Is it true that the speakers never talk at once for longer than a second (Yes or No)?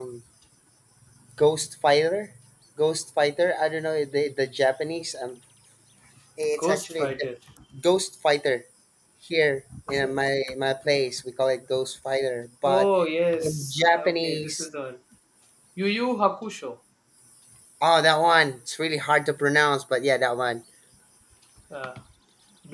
No